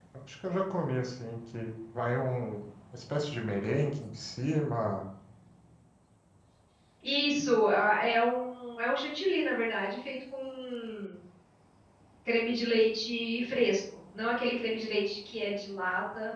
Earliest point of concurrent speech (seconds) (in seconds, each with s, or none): none